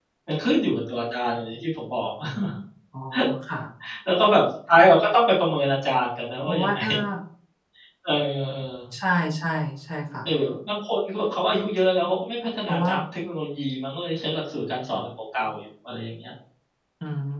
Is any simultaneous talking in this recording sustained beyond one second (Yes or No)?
No